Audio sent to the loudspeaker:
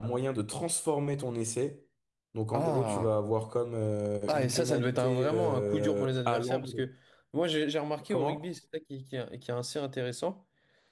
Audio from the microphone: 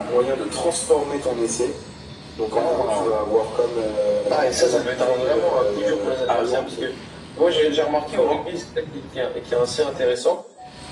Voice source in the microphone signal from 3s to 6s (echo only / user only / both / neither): echo only